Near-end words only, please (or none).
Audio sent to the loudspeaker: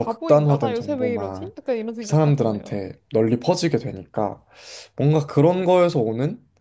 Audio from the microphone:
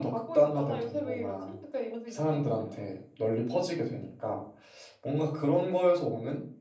none